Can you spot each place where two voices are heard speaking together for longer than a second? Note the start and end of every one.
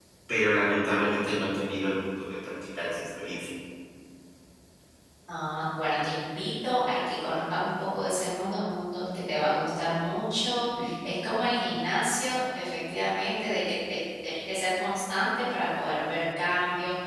none

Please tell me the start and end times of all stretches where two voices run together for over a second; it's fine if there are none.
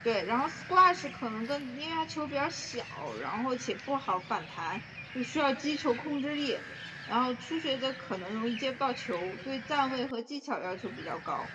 none

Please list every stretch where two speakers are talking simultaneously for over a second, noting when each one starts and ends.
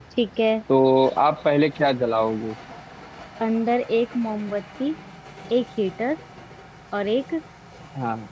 none

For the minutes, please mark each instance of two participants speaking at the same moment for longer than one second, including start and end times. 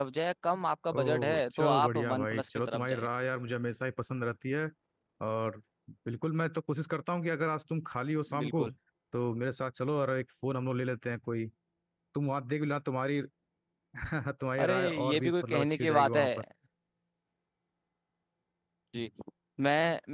1.0-3.1, 14.6-16.3

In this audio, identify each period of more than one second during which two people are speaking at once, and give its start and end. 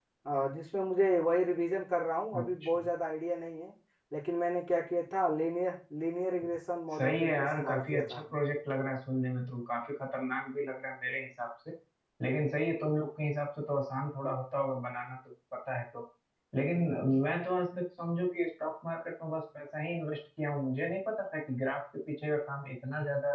7.0-8.2

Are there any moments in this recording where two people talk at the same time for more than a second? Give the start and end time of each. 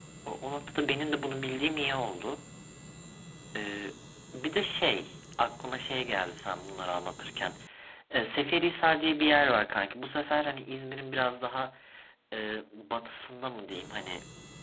none

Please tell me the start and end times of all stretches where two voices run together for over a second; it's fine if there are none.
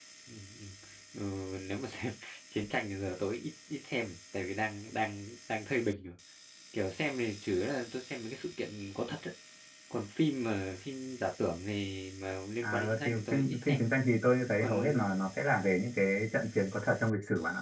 12.6-13.8

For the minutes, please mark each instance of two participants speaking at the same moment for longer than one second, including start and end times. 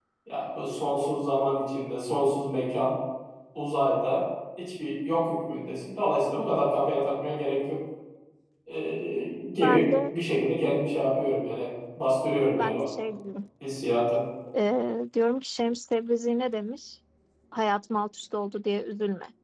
none

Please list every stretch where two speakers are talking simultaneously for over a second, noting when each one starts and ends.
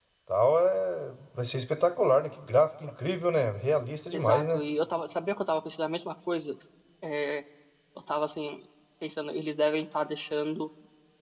none

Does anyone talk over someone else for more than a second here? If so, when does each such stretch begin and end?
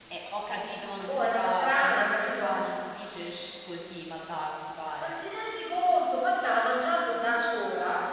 1.1-2.5

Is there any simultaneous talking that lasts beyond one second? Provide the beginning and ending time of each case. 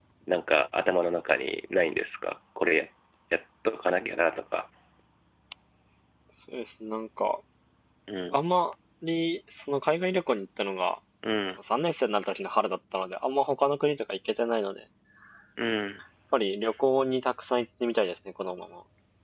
none

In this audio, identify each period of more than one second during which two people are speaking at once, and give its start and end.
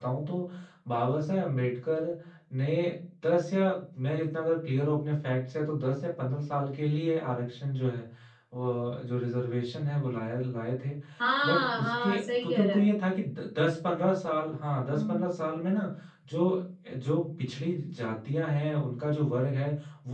11.4-12.9

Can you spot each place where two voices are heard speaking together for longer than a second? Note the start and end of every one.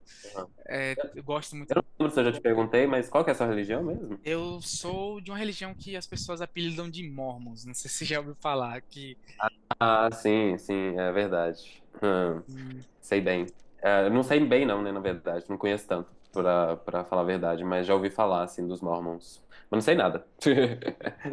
none

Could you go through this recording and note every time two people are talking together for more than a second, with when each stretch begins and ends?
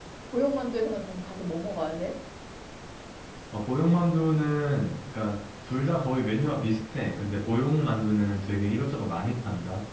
none

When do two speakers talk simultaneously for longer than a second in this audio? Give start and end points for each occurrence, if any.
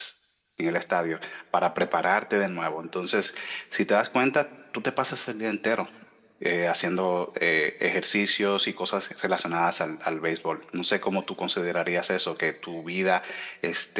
none

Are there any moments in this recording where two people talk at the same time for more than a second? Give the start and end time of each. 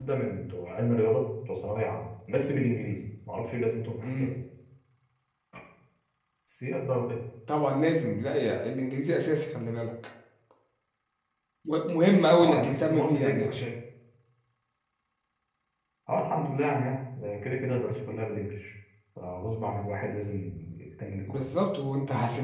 12.4-13.7

